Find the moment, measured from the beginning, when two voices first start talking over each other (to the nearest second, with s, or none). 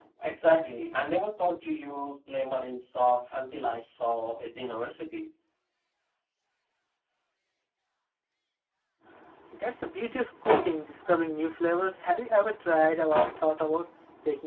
none